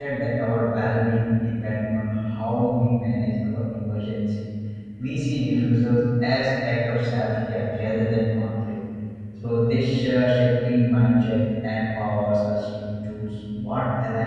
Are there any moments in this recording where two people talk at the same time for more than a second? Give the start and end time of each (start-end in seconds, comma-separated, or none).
none